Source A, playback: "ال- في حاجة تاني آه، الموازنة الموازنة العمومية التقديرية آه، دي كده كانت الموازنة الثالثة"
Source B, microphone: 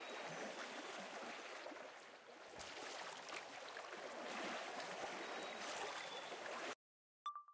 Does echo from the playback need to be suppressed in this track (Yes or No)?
No